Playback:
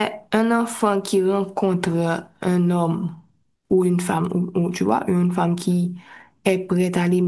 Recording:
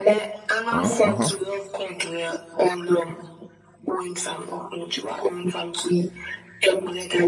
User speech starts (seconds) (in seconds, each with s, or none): 0.7 s